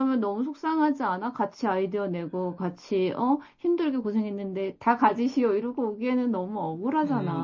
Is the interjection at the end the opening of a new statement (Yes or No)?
Yes